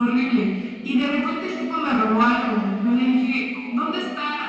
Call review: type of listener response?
listening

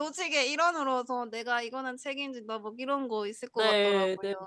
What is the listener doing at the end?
taking over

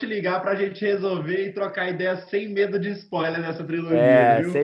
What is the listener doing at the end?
taking over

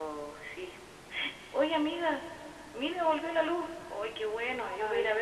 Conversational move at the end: taking over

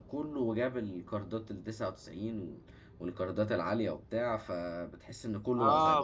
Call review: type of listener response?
taking over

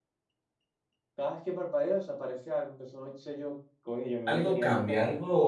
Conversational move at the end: taking over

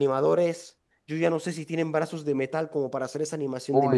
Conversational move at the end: taking over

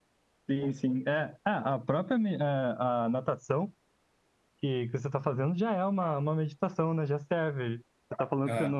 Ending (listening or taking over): listening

